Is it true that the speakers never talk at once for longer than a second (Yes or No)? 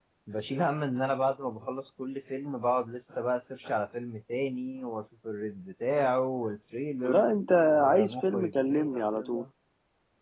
No